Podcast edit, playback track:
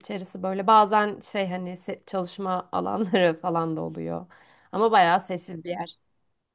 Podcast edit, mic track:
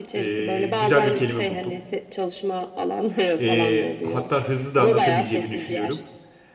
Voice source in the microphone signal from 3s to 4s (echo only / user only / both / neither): both